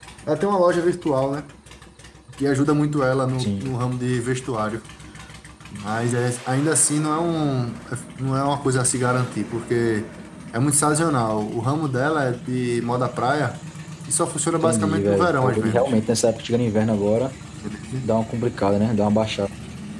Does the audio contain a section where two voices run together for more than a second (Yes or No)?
Yes